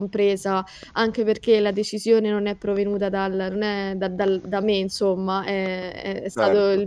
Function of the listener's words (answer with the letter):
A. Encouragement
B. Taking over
A